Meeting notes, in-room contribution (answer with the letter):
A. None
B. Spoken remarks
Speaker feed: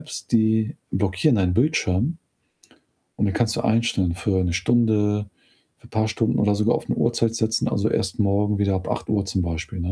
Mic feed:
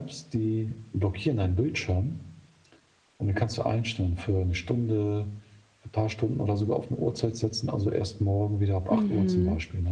B